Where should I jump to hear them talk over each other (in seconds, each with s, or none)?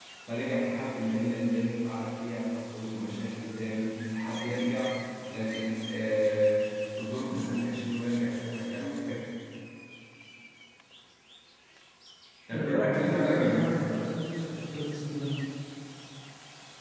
12.5 s